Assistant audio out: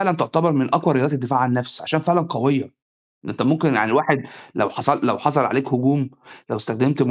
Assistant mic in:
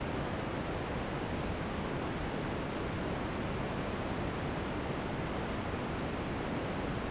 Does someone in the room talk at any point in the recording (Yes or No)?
No